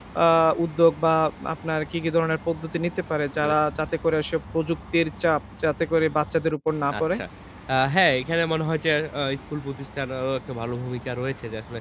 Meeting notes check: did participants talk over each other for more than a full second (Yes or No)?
No